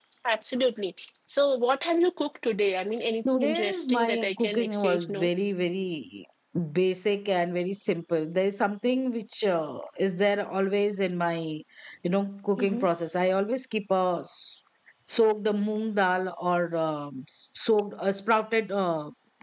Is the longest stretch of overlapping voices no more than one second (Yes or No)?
No